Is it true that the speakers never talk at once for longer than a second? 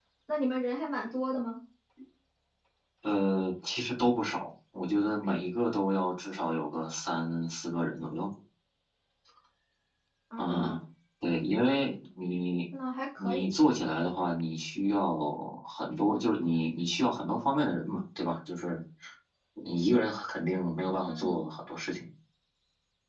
Yes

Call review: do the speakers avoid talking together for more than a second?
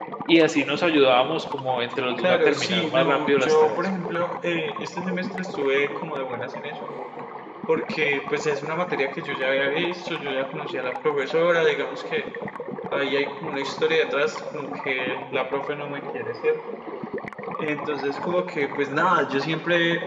No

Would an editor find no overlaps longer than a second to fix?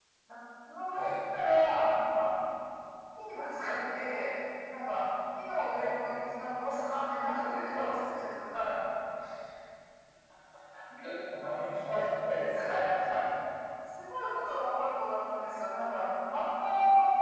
Yes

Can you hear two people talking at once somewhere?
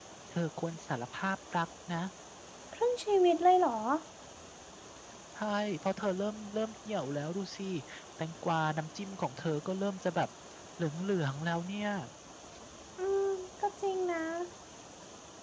No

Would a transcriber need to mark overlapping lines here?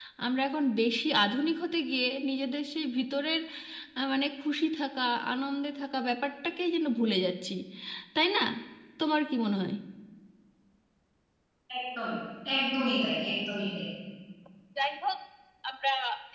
No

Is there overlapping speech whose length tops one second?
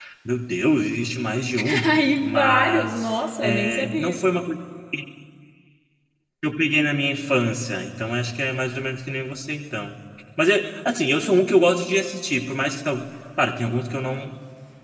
Yes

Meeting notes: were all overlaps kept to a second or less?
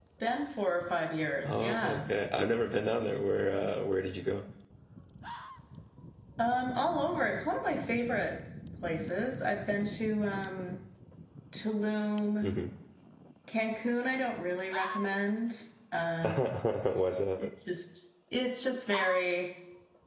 Yes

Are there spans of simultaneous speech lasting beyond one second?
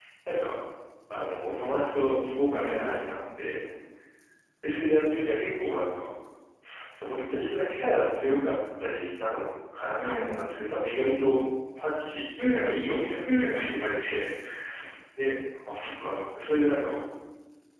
No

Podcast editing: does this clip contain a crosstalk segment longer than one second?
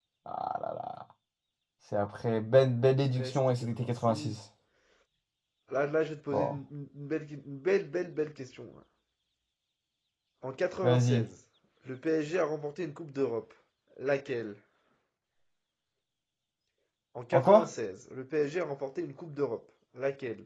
Yes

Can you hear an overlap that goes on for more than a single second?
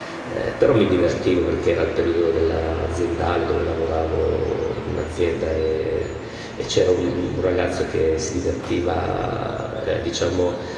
No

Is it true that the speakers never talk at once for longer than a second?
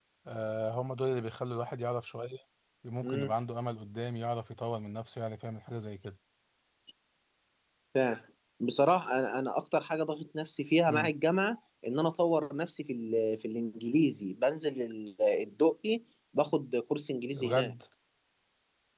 Yes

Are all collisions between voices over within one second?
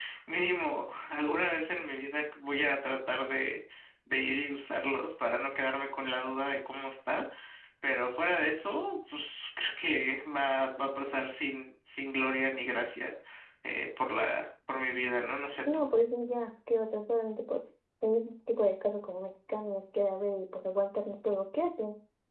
Yes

